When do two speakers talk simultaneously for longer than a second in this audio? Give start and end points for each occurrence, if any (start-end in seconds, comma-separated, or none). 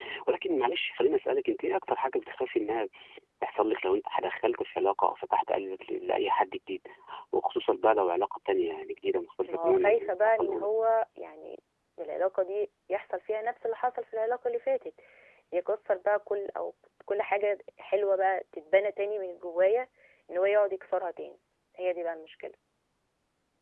9.4-10.7